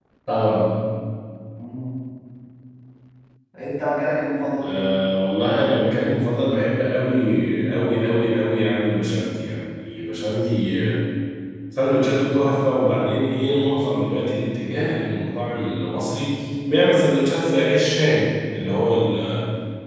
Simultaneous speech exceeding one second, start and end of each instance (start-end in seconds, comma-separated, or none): none